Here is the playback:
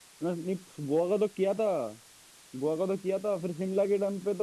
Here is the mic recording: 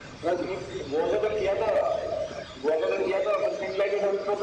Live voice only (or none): none